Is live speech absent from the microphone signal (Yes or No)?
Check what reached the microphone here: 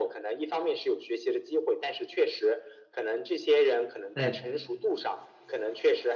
No